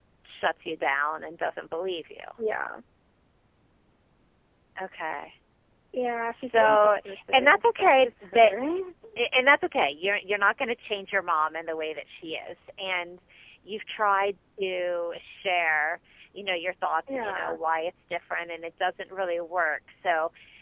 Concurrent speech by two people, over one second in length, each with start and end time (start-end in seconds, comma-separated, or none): 6.3-8.6